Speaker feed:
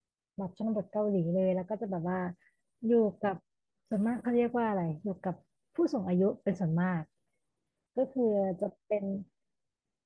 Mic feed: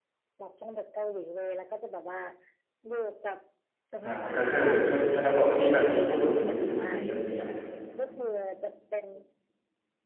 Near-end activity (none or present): present